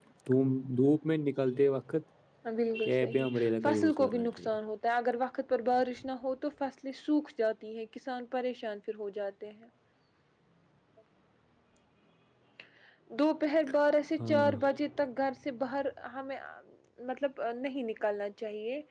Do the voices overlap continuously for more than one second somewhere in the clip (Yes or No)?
Yes